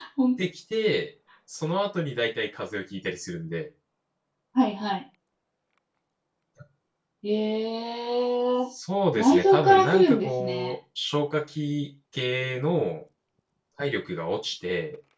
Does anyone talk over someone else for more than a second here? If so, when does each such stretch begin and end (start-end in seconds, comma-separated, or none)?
9.2-10.7